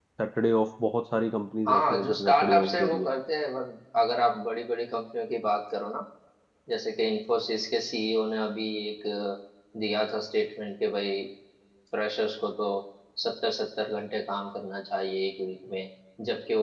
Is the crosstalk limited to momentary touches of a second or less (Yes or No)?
No